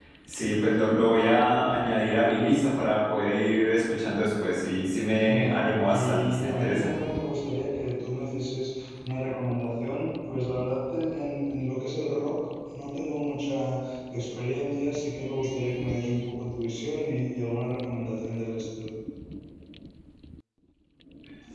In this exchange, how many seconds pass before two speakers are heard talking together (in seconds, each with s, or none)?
5.1 s